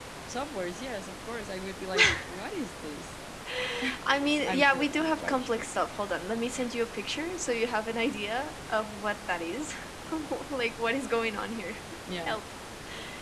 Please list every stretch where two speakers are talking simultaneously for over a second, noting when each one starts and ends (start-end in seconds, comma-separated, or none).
4.5-5.7